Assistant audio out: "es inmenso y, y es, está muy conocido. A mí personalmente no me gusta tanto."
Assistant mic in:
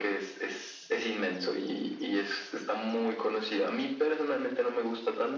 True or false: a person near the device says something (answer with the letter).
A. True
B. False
B